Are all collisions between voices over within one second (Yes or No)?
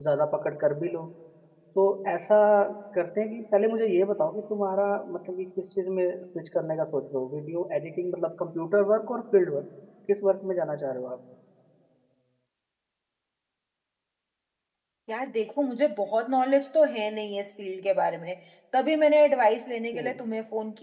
Yes